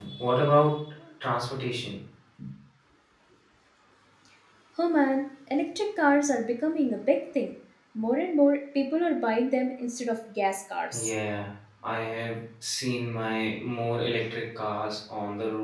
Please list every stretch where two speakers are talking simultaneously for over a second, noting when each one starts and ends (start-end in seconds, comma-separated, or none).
none